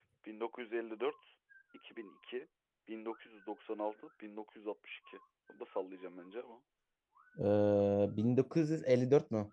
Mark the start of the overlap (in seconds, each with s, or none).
none